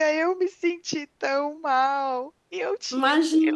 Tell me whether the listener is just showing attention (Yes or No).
Yes